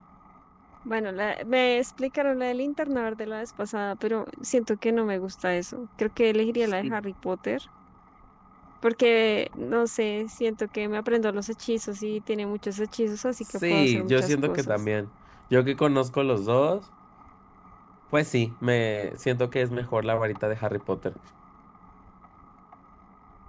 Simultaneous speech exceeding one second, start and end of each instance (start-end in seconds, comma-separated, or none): 13.4-14.8